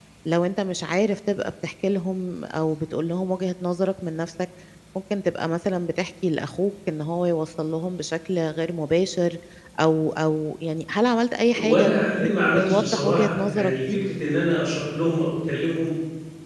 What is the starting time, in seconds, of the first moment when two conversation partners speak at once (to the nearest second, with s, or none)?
12 s